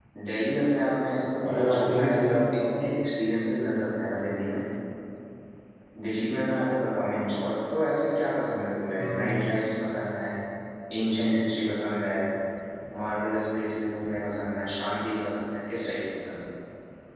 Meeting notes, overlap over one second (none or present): present